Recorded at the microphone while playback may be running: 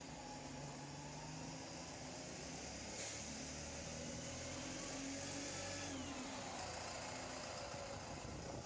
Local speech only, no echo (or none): none